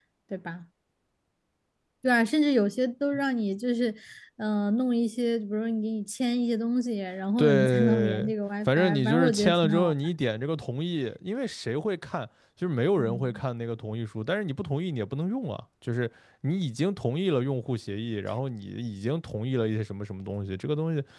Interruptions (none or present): present